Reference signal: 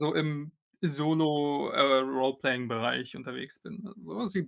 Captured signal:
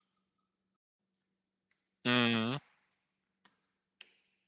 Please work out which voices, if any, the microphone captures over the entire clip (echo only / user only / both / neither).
user only